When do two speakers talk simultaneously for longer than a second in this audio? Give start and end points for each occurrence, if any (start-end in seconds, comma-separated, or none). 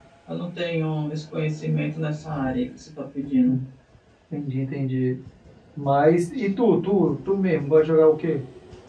none